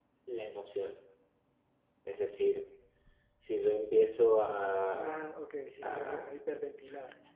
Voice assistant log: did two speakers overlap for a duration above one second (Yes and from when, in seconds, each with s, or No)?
No